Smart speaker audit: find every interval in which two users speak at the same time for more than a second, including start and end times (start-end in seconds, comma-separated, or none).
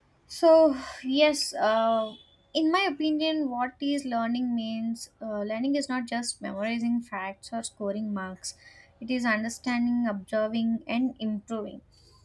none